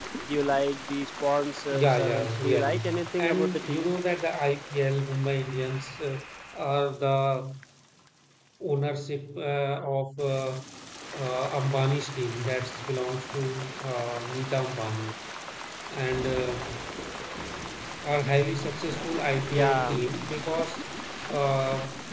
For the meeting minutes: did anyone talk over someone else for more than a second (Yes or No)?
Yes